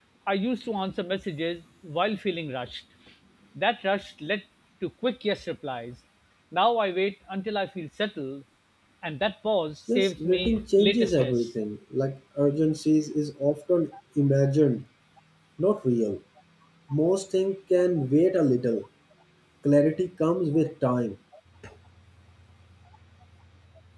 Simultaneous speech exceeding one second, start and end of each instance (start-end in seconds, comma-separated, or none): 10.0-11.5